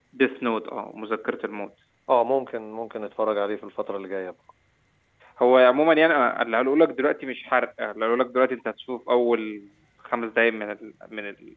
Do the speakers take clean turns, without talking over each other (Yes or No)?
Yes